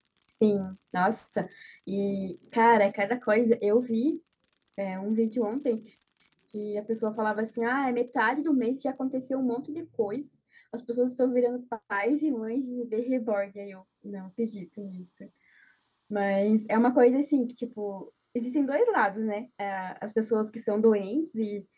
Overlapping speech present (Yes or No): No